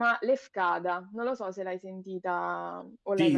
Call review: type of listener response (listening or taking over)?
taking over